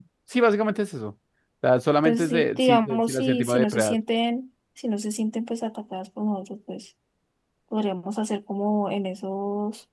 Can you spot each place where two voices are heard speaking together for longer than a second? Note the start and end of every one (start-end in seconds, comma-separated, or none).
2.0-4.0